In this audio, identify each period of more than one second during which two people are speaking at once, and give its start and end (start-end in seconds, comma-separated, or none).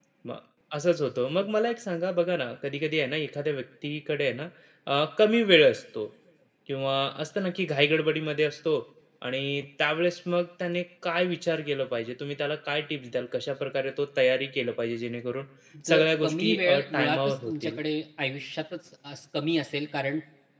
15.9-17.8